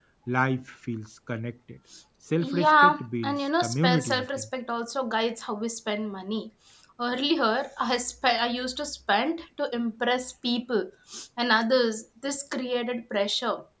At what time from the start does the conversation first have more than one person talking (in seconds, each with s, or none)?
2.4 s